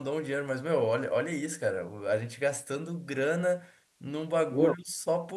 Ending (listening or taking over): listening